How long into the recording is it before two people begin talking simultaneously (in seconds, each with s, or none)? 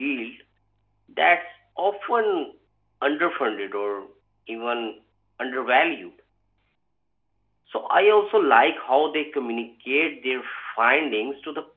none